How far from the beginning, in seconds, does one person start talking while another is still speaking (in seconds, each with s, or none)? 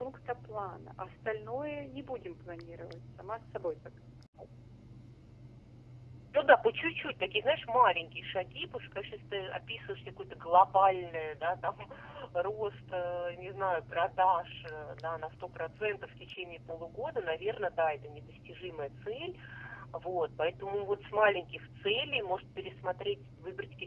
none